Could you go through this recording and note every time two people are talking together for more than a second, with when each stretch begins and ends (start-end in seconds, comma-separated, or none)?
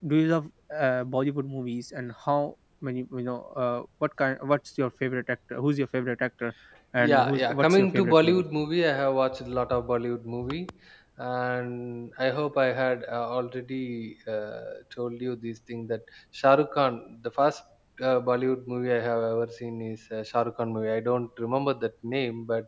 7.0-8.4